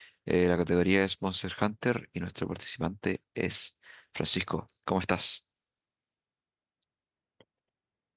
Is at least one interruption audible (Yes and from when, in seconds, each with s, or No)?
No